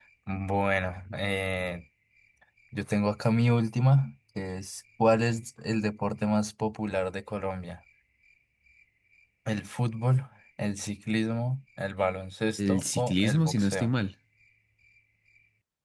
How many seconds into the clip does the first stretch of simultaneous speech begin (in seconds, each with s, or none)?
12.6 s